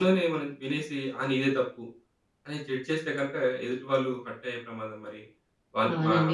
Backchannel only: No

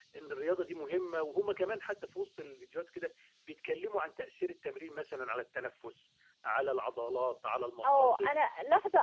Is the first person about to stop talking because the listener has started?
Yes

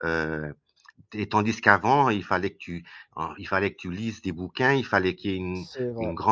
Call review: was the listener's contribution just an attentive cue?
Yes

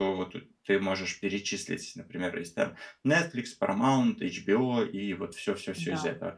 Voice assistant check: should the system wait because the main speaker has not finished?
Yes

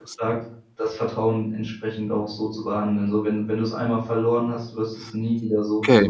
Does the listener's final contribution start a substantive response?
Yes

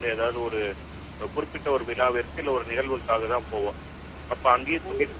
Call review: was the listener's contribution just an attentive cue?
Yes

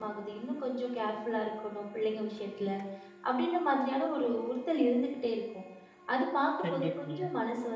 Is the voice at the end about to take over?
No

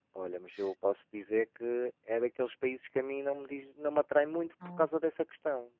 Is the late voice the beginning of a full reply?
No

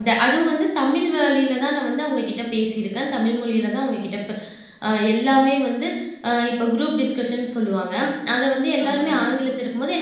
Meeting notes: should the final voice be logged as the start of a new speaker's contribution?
No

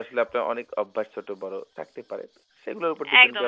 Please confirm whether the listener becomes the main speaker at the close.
Yes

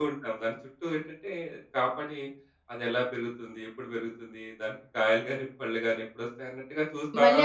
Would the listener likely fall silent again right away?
No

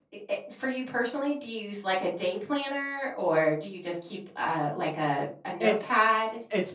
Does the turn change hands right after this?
Yes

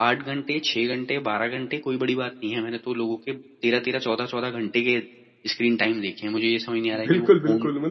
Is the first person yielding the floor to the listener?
Yes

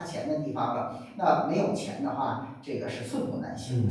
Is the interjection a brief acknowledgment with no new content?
No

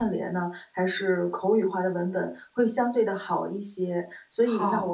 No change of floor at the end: Yes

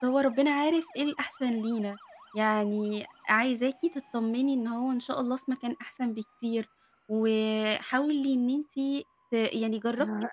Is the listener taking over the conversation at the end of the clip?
Yes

